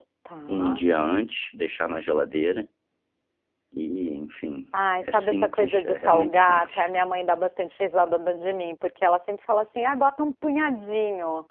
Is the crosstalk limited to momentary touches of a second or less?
No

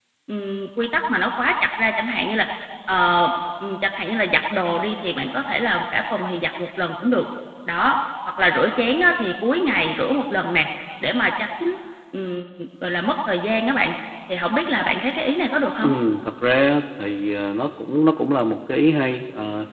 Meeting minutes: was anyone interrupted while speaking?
No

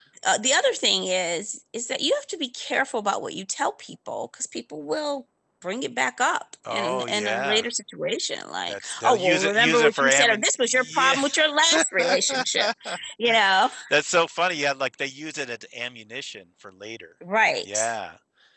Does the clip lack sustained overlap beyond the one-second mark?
No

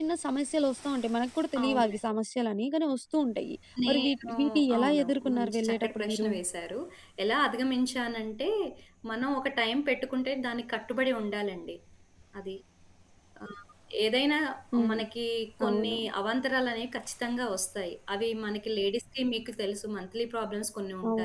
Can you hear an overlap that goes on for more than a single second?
Yes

